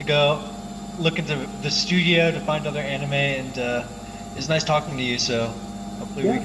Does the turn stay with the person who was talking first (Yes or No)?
No